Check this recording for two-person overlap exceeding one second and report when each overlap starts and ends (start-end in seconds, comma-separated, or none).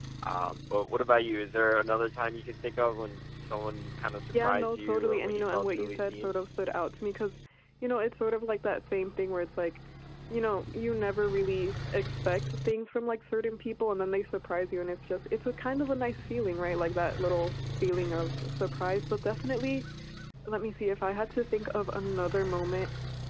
4.4-6.3